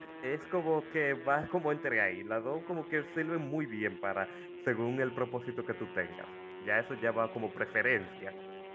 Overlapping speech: No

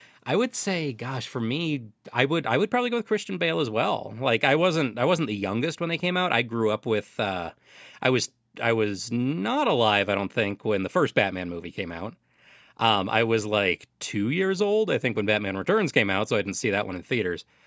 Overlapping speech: No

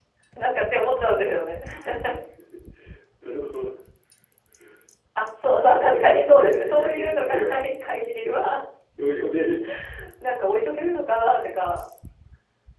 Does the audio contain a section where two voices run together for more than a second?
Yes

